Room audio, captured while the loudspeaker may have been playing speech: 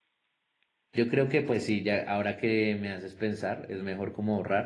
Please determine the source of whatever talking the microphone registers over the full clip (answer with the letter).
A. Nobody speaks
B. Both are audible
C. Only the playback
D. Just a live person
D